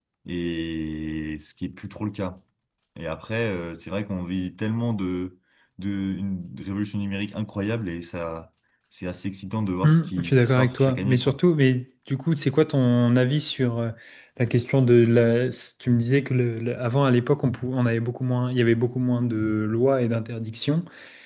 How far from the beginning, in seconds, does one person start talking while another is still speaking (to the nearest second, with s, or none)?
10 s